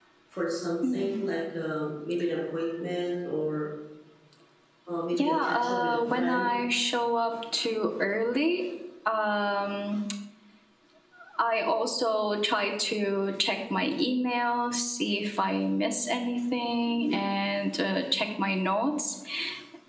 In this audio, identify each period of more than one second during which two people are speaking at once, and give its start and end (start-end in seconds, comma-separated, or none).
5.1-6.6